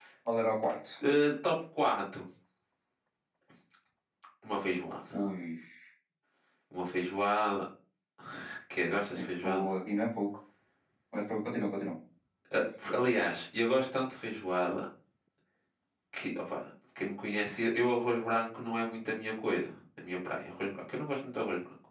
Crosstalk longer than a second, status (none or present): none